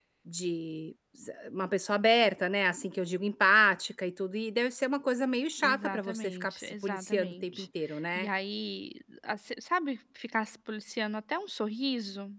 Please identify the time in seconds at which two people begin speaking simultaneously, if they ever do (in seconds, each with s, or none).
5.6 s